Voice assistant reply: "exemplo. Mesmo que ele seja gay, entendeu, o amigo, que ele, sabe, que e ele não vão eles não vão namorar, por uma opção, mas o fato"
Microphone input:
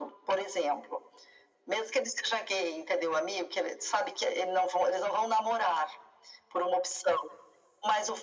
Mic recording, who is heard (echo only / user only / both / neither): echo only